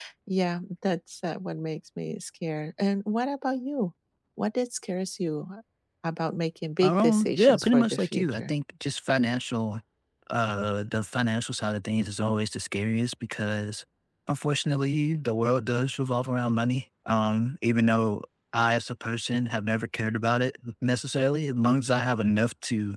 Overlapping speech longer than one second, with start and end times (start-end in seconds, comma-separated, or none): 6.8-8.5